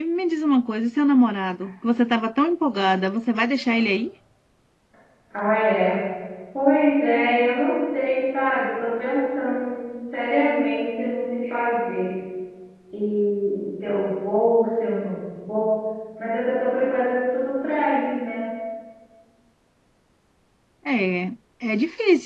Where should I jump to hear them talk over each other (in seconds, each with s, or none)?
none